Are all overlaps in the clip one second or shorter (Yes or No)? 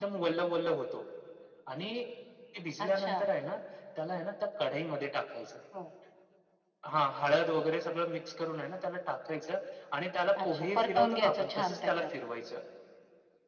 No